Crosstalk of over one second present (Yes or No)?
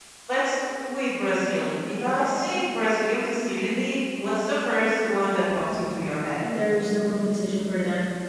No